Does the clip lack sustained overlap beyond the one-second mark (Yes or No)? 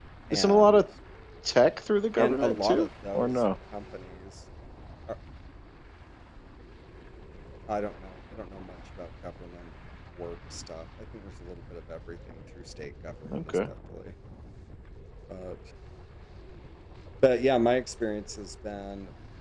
No